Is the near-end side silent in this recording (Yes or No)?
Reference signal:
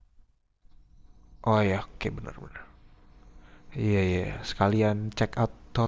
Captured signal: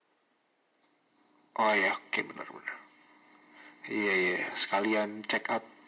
Yes